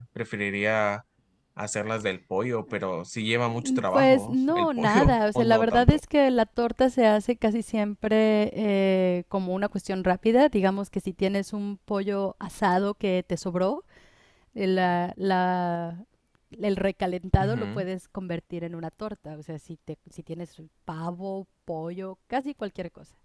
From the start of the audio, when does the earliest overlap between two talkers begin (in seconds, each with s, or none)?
3.6 s